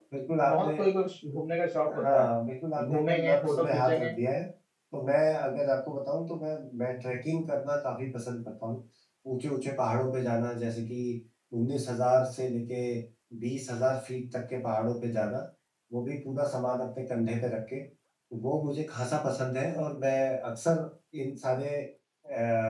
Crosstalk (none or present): present